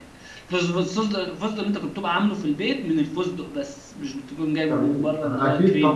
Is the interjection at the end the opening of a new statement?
Yes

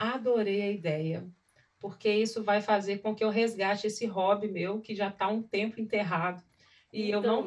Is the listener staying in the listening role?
Yes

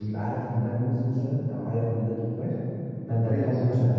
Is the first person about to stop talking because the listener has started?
No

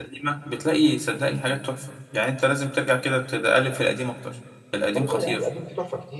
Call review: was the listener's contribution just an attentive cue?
No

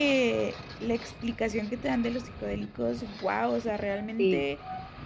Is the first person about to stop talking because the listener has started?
No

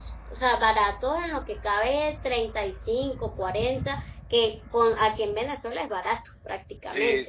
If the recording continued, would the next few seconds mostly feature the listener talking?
Yes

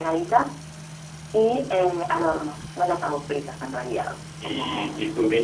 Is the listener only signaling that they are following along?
No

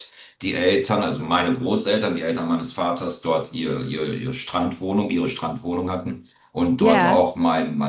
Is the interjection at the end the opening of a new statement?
No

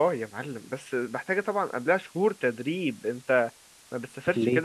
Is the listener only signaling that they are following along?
Yes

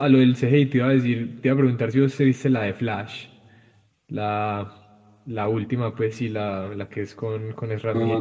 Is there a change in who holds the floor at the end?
Yes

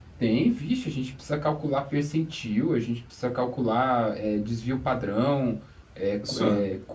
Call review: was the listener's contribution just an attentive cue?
Yes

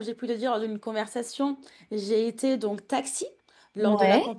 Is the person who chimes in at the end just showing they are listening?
Yes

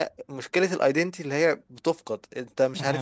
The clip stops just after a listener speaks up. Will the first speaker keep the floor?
No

